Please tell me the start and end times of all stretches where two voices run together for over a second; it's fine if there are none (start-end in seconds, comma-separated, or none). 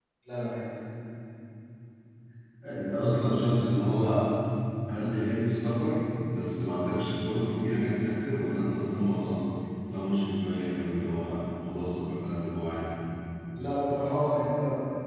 none